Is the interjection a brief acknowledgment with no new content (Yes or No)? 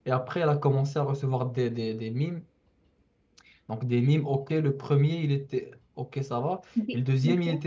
Yes